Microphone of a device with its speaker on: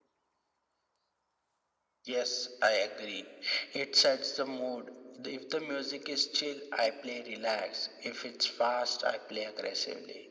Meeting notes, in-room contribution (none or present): none